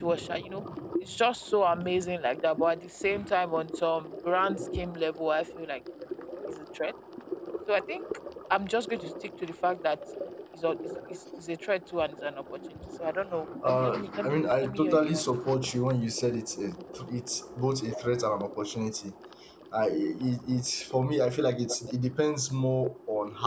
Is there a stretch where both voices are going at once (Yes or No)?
Yes